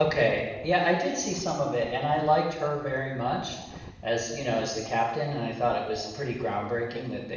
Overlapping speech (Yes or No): No